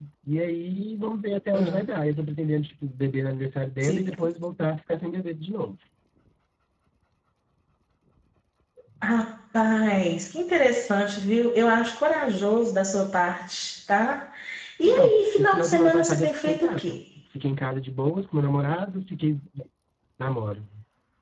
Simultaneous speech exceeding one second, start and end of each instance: 14.8-17.0

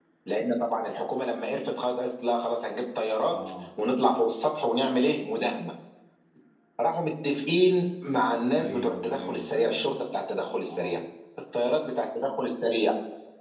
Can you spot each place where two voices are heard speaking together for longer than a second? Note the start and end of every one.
8.6-10.0

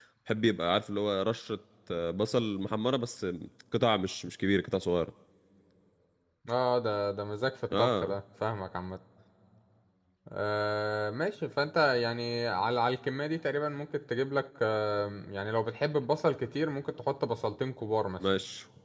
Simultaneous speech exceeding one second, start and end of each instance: none

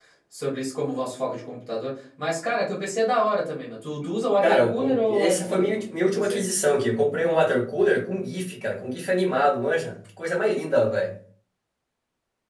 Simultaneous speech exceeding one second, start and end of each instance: 4.4-6.4

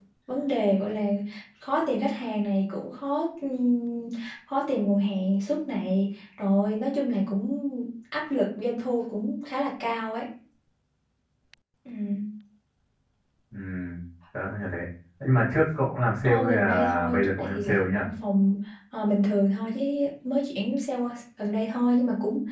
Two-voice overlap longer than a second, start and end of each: 16.2-18.0

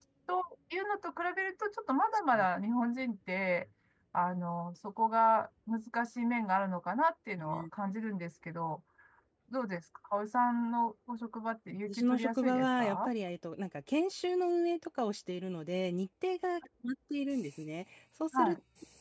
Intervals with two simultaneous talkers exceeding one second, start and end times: 11.9-13.1

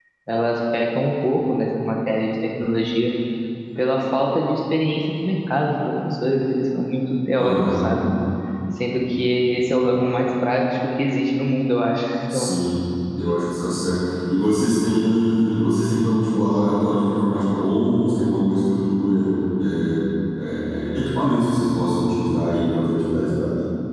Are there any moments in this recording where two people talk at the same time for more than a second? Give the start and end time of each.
none

